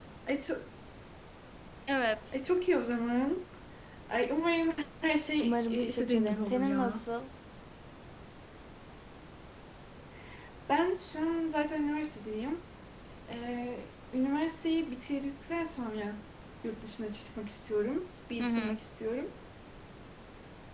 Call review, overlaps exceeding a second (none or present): present